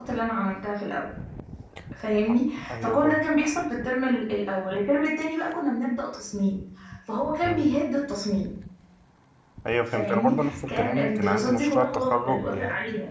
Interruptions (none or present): present